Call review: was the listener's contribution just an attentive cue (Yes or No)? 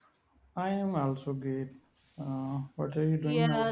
No